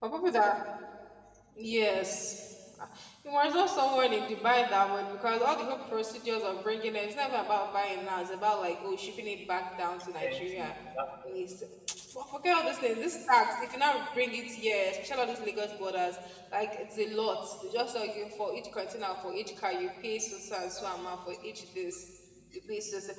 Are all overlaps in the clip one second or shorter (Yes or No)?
Yes